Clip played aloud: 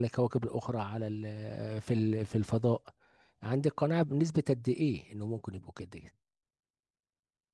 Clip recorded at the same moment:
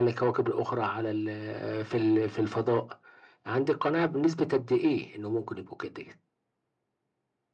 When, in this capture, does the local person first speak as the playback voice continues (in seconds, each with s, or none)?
none